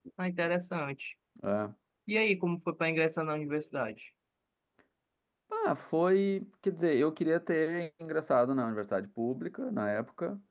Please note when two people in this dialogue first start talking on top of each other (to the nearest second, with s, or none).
none